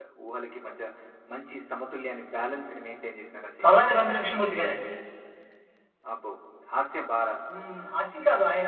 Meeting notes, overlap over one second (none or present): none